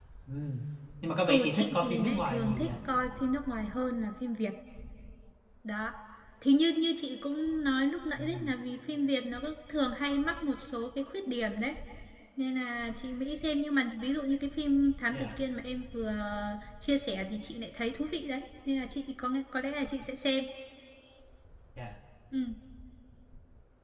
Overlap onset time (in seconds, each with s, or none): 1.3 s